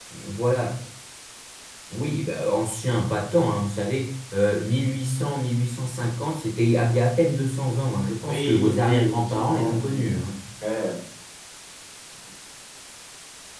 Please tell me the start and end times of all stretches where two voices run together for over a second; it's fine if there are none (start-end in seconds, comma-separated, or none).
8.2-10.2